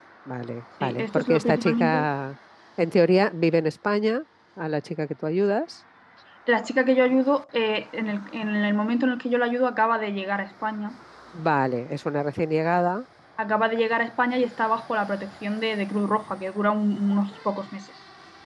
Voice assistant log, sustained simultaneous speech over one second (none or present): present